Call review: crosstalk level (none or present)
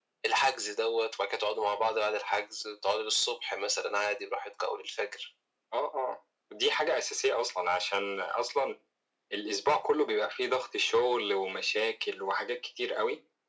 none